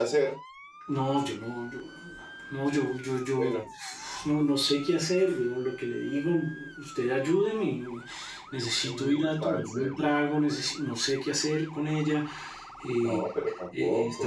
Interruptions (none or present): present